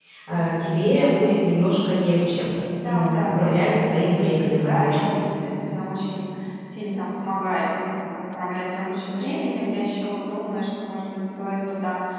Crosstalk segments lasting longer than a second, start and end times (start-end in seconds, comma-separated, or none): 2.8-5.2